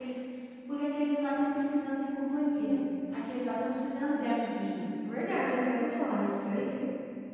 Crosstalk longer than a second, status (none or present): none